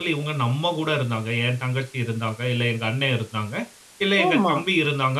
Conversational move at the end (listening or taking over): listening